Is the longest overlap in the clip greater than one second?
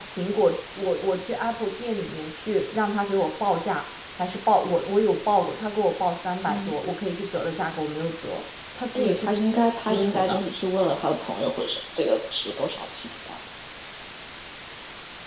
Yes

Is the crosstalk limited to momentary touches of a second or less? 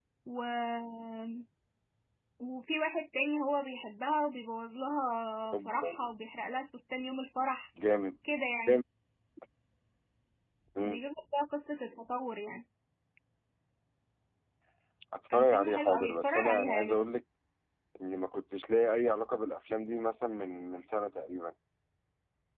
No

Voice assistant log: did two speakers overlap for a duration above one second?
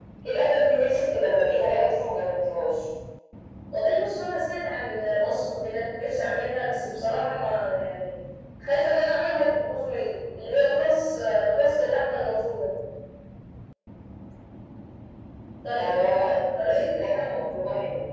Yes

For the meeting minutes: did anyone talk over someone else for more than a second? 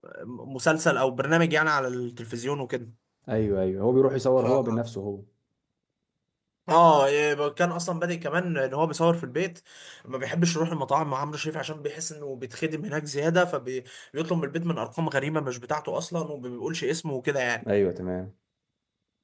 No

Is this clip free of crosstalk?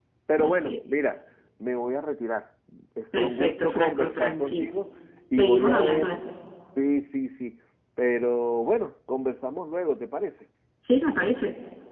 No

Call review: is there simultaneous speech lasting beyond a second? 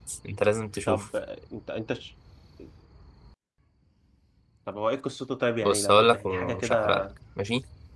Yes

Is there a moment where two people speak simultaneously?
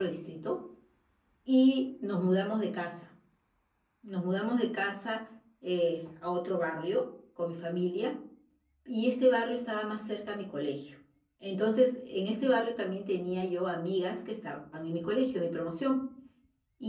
No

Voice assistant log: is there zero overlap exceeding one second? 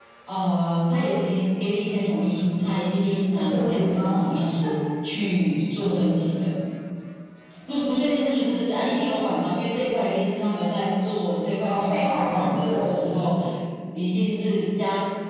No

